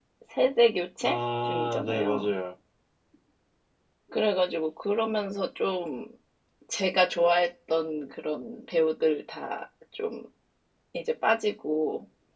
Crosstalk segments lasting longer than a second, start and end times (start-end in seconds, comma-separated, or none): 1.0-2.3